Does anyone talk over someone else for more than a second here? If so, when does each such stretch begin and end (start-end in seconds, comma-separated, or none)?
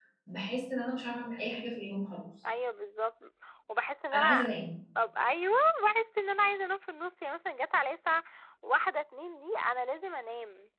none